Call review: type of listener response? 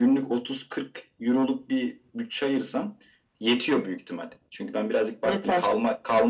listening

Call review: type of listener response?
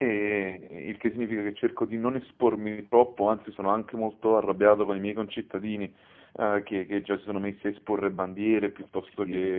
listening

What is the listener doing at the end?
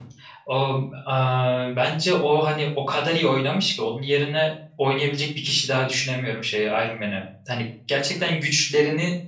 listening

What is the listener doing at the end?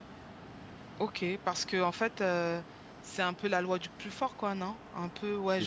listening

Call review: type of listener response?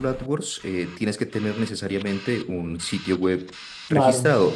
listening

